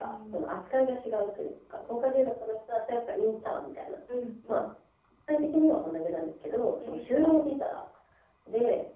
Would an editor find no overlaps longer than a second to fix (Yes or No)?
Yes